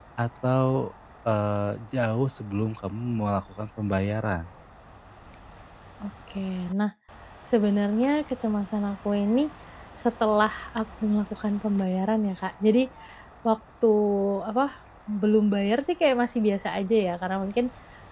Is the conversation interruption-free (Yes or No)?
Yes